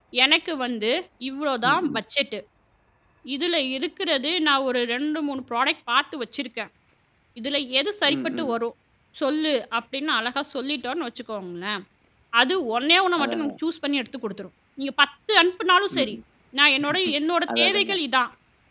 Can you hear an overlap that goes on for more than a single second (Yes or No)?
No